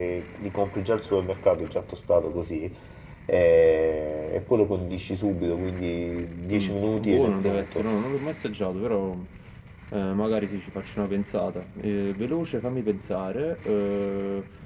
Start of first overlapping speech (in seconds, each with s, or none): 6.5 s